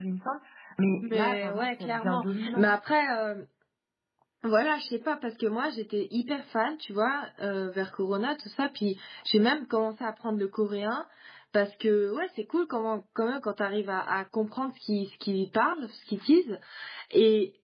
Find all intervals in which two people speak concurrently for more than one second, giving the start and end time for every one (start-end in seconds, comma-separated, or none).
1.0-2.7